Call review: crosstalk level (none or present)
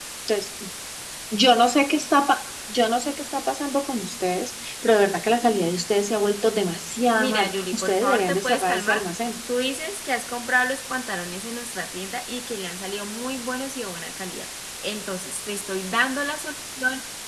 present